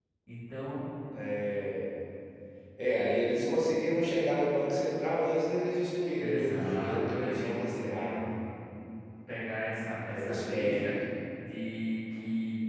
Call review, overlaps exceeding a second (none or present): present